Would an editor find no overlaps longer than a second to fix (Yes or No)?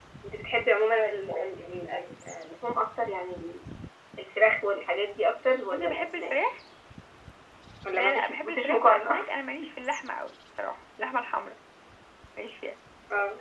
No